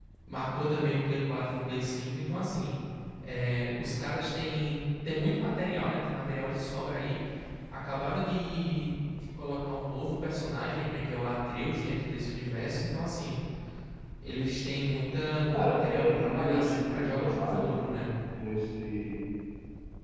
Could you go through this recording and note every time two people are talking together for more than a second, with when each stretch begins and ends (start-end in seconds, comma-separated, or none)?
15.5-17.8